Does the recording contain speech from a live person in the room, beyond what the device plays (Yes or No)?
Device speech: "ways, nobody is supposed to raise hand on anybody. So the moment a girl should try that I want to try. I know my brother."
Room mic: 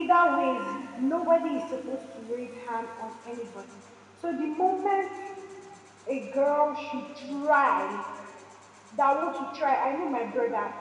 No